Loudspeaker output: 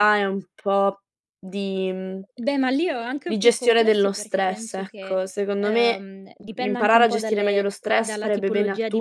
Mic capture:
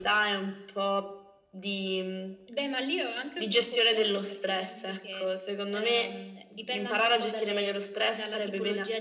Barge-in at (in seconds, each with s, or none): none